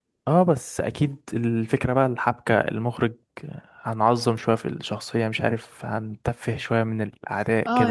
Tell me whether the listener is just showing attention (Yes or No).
No